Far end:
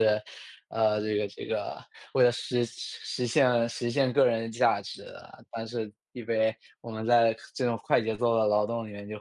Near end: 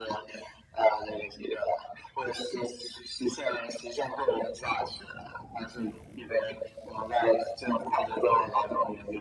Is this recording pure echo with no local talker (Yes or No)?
Yes